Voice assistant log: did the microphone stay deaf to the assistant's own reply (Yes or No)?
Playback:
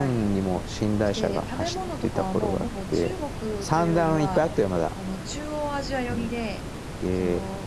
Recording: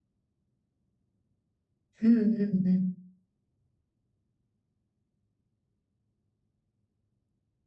Yes